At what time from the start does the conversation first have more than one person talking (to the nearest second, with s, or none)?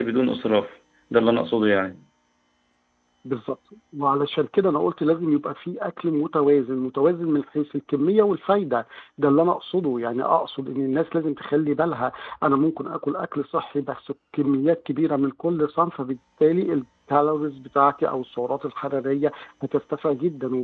none